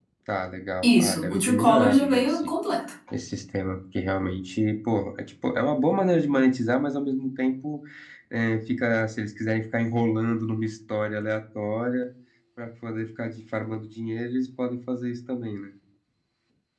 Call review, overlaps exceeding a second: present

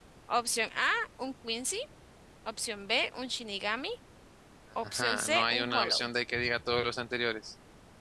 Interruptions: present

